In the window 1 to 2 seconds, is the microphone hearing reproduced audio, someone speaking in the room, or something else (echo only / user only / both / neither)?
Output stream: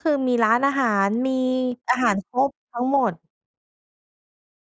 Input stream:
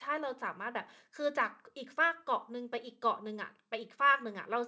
user only